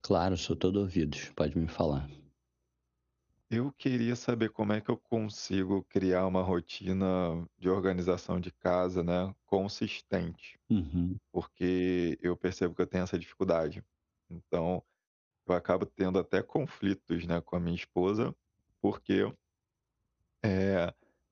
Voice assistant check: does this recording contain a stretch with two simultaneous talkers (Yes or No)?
No